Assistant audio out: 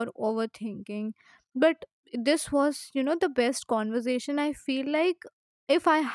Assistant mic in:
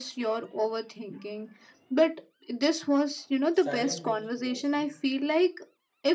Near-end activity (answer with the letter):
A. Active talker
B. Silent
A